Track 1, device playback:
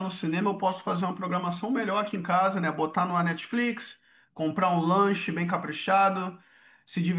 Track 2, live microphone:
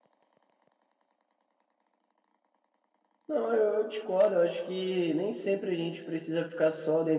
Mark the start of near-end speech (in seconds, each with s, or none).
3.2 s